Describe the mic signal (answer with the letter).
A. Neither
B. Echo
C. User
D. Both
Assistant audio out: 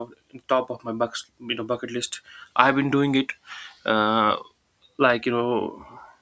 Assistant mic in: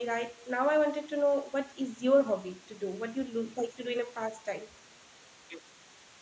C